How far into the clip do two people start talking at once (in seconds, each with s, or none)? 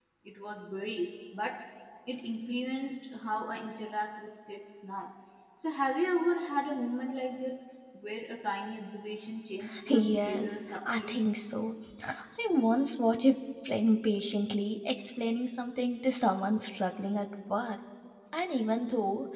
9.9 s